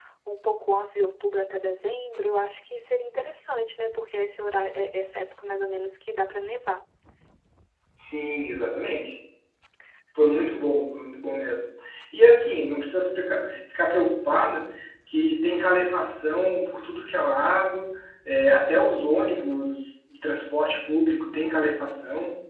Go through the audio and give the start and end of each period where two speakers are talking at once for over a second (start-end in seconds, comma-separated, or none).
none